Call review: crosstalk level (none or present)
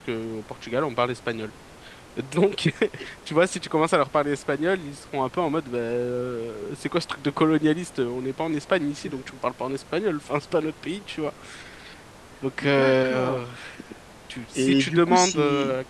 present